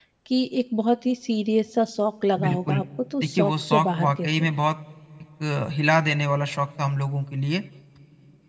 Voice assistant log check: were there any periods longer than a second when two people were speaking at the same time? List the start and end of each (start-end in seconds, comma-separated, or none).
3.2-4.5